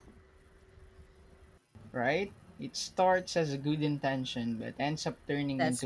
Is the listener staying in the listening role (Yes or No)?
No